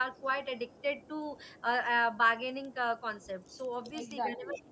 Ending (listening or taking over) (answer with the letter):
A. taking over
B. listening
A